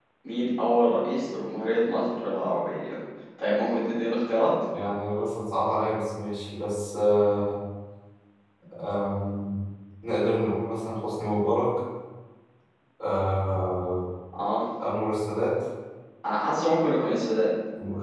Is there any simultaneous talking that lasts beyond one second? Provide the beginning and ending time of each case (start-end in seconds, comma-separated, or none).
none